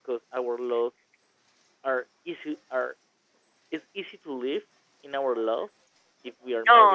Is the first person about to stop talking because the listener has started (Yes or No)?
No